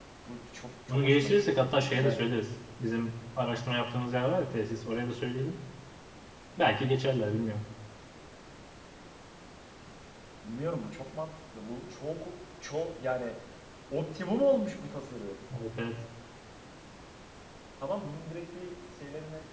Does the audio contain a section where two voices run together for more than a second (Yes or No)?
Yes